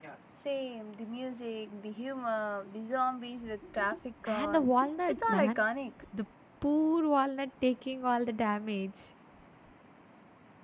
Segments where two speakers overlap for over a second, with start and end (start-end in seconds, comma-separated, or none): 4.3-5.6